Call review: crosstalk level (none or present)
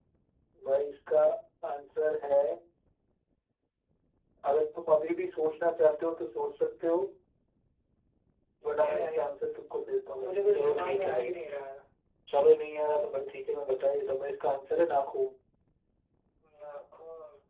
present